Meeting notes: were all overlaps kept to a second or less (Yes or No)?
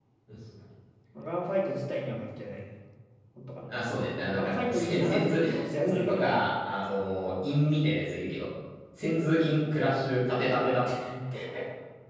No